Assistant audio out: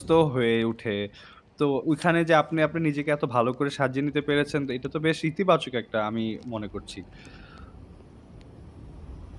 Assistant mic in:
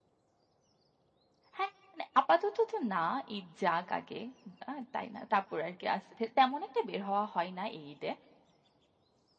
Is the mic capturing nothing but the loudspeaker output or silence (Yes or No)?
No